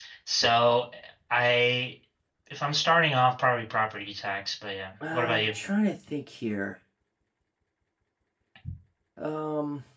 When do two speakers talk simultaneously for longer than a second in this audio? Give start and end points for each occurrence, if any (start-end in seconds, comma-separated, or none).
none